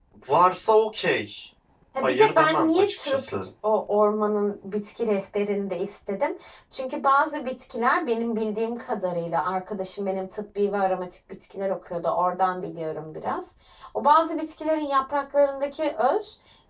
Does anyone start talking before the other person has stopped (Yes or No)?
Yes